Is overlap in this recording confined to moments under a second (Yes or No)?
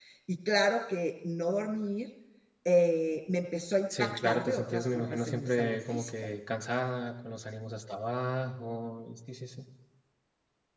No